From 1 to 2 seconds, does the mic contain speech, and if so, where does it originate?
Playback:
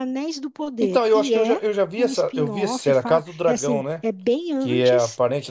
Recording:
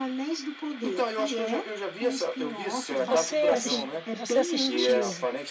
echo only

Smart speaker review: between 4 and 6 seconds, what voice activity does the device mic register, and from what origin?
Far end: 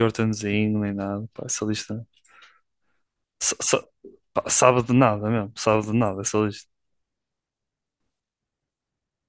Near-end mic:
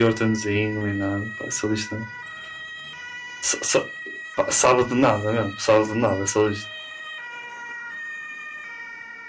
echo only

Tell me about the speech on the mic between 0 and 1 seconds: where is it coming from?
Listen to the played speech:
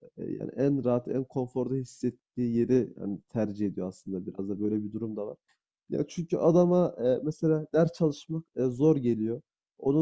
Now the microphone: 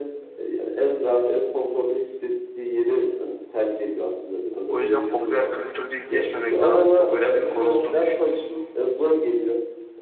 echo only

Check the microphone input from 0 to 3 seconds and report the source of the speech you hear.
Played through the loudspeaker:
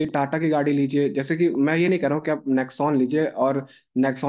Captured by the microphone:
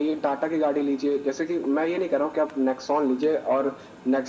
echo only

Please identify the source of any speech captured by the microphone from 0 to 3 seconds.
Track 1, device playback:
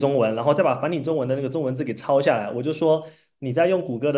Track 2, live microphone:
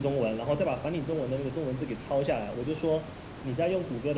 echo only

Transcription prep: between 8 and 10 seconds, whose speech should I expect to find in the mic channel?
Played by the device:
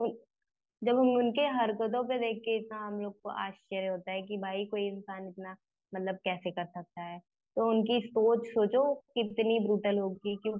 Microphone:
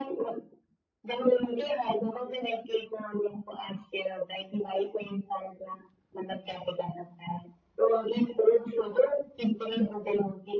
echo only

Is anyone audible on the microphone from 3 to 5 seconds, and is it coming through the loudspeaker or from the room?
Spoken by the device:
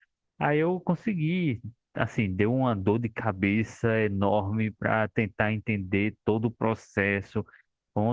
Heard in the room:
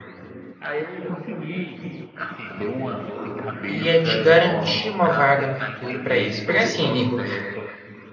both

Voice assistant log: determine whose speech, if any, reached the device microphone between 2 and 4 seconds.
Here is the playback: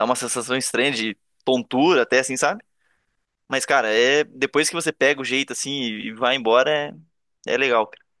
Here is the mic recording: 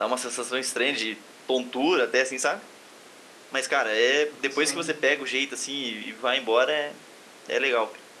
echo only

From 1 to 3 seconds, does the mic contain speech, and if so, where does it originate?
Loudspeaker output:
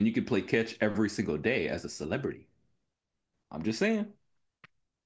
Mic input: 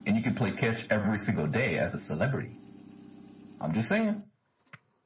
echo only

